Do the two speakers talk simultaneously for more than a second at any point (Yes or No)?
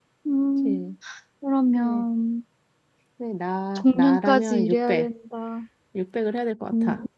Yes